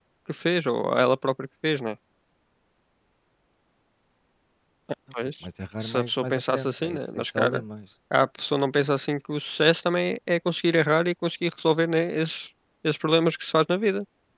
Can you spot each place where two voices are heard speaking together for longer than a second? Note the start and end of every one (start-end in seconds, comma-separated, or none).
5.8-7.6